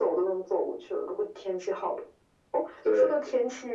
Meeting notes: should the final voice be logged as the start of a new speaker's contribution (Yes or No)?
No